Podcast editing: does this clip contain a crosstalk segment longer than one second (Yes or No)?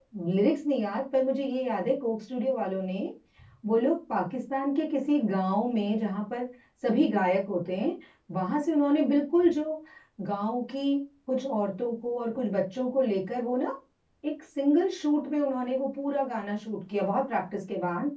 No